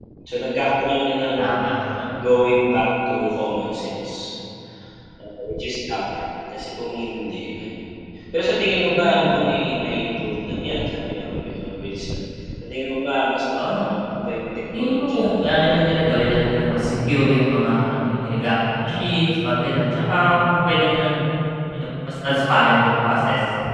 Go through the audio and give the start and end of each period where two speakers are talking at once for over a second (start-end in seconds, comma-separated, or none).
14.7-16.0